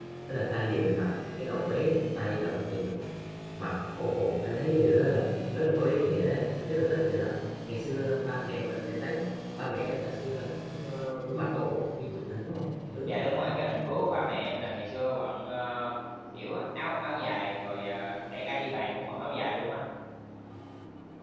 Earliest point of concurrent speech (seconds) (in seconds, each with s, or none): none